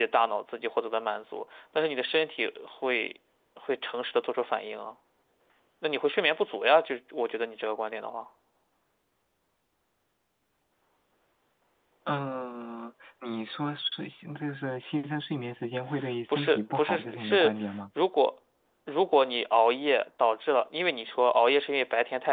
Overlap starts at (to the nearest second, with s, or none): 16 s